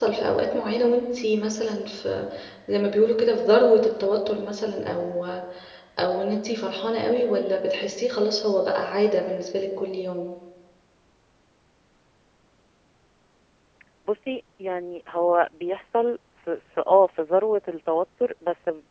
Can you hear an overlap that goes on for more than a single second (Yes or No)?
No